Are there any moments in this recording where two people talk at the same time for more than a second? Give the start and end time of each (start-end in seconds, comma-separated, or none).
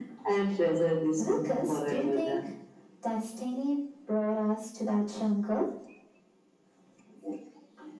1.2-2.5